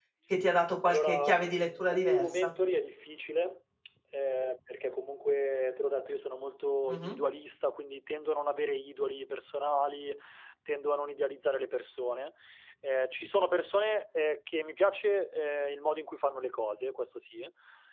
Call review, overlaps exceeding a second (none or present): present